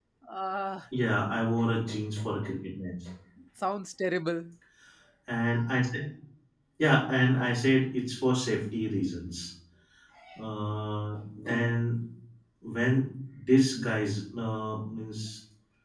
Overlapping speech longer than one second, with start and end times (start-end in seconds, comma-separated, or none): none